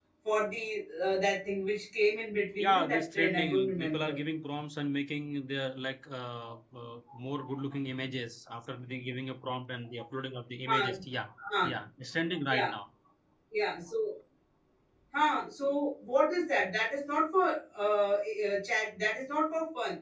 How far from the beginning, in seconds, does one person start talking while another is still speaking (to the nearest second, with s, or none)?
3 s